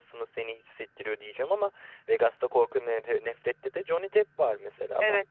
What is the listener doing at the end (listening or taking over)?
taking over